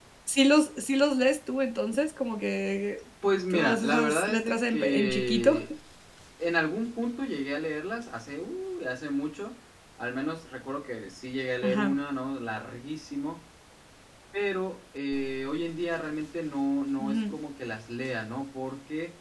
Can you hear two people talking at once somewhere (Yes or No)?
Yes